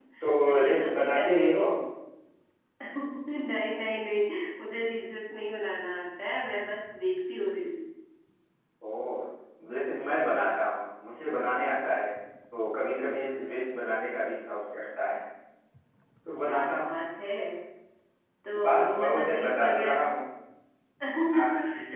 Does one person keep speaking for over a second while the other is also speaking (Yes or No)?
Yes